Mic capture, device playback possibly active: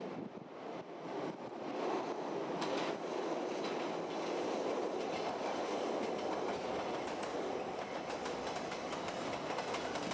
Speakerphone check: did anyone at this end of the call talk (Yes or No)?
No